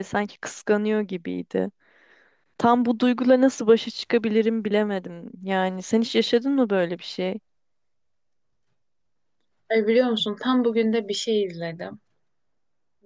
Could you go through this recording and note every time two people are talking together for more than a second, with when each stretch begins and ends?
none

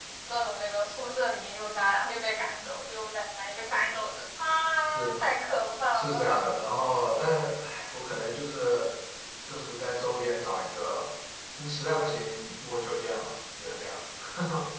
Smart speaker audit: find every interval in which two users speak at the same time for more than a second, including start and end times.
none

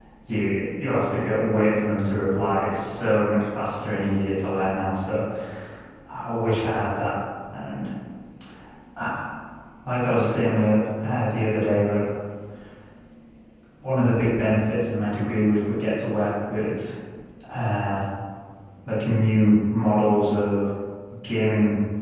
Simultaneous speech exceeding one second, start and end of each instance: none

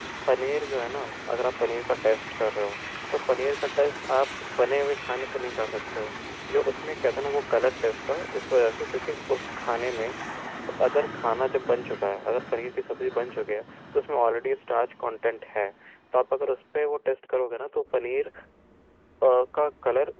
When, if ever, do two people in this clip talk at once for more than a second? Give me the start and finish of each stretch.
none

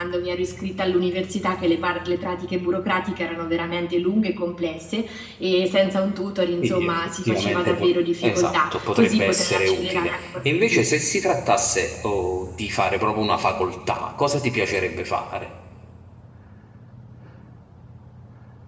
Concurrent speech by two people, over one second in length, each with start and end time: 6.6-10.9

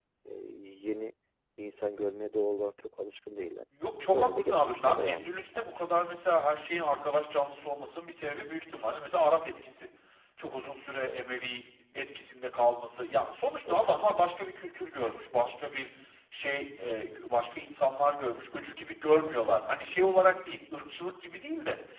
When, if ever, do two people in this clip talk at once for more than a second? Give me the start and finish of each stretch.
4.1-5.7

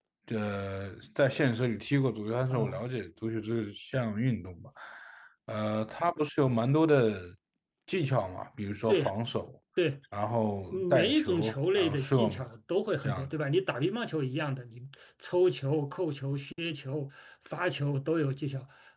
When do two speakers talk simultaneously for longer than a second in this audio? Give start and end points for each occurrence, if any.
10.7-12.4

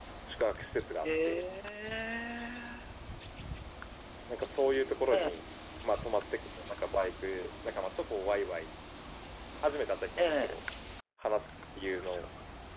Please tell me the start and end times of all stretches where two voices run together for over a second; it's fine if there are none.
none

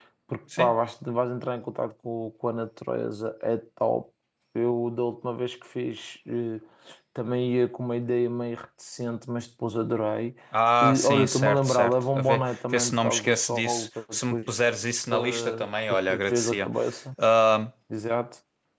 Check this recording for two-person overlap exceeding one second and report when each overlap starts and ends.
10.8-14.5, 15.1-16.7

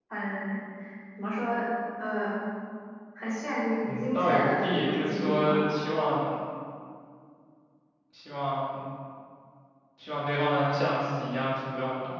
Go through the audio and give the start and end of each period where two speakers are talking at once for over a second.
3.8-5.6

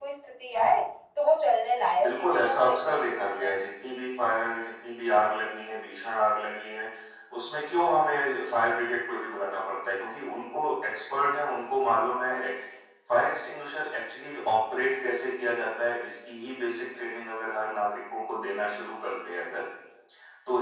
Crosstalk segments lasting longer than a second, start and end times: 2.0-3.5

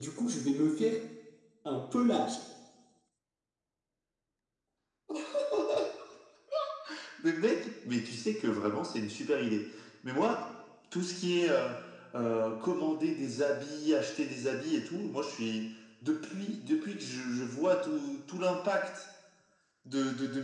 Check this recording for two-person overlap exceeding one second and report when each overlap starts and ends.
none

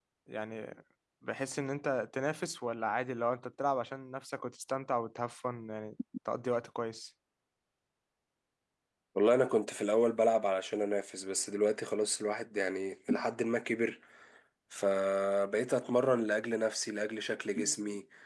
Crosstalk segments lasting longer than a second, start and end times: none

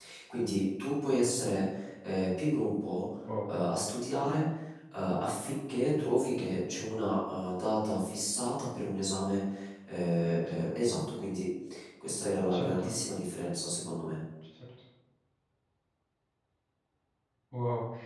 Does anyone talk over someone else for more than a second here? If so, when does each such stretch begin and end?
none

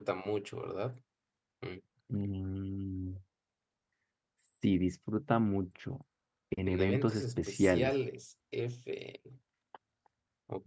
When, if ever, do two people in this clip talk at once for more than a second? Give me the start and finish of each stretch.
6.7-7.9

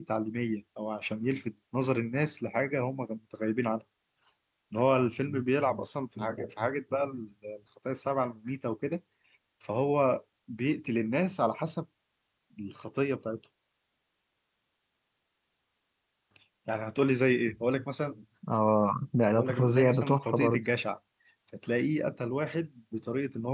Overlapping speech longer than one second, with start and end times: 19.3-20.6

